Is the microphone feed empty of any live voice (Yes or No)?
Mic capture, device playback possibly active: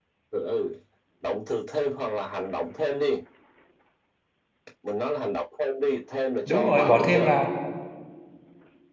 No